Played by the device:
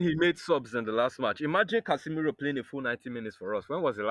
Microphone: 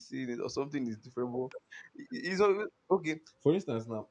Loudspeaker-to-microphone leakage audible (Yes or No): No